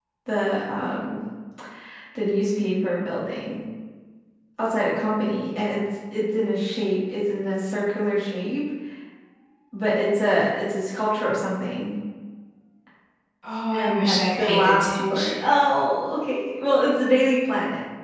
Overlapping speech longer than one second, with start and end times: 13.8-15.3

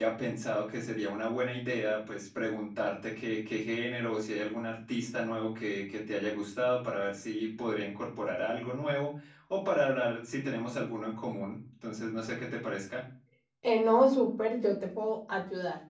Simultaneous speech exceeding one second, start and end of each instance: none

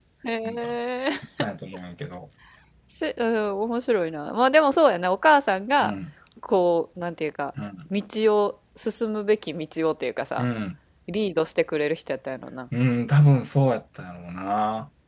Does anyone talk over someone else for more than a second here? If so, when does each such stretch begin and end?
none

